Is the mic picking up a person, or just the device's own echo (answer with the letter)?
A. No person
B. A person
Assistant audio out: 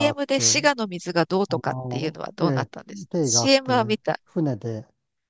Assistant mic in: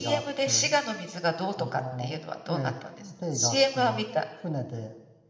A